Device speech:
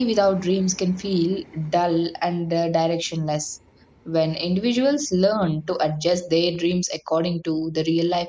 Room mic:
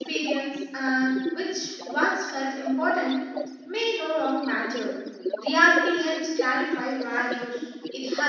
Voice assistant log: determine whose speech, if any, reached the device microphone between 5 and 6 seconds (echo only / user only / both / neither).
both